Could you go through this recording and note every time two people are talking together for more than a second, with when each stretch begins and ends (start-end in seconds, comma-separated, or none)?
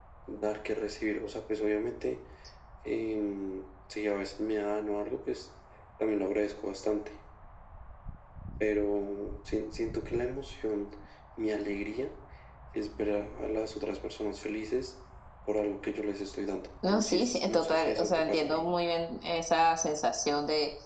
16.9-18.6